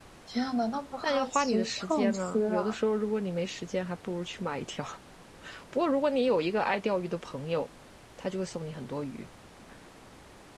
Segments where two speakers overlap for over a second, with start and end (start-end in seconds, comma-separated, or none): 1.0-2.8